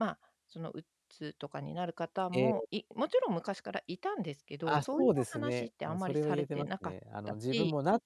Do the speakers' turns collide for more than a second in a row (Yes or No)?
Yes